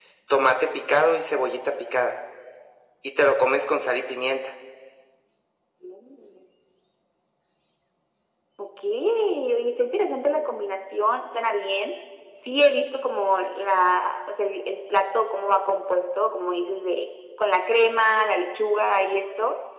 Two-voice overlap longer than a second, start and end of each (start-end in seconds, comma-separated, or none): none